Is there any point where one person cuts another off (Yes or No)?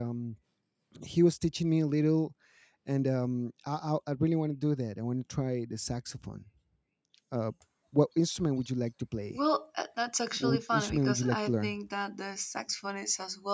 Yes